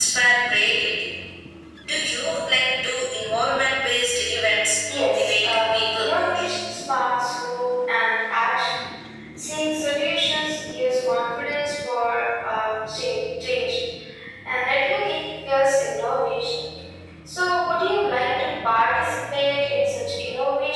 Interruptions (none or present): present